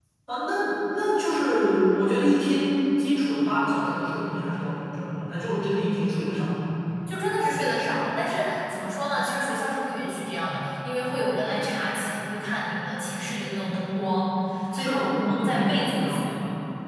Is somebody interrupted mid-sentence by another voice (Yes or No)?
Yes